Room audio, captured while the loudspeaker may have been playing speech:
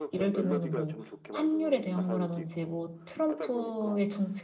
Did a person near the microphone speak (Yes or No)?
Yes